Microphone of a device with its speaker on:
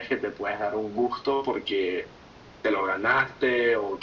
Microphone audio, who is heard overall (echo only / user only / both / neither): echo only